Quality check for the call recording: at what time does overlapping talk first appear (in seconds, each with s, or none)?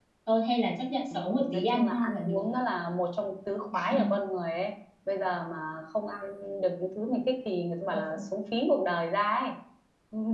1.1 s